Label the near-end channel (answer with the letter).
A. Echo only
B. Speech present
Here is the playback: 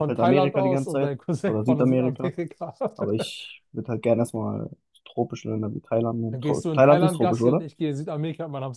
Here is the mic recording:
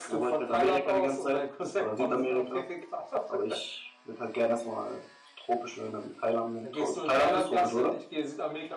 A